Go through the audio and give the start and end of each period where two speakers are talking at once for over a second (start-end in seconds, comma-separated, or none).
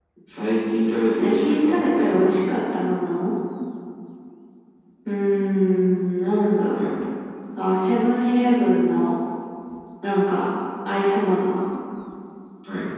1.2-2.5